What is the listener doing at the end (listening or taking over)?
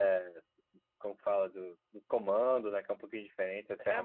taking over